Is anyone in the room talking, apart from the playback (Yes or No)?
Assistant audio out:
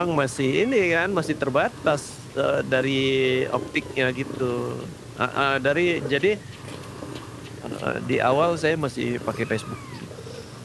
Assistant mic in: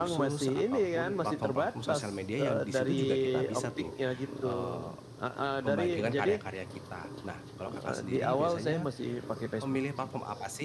Yes